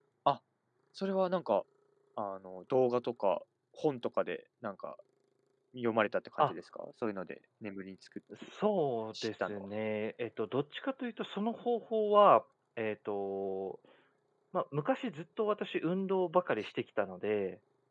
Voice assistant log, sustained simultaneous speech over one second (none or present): none